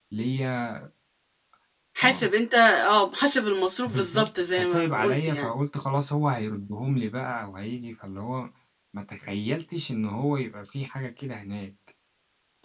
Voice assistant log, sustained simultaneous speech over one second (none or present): present